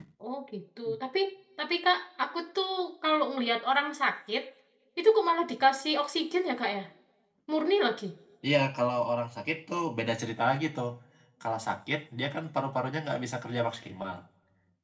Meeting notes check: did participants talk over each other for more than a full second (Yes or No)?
No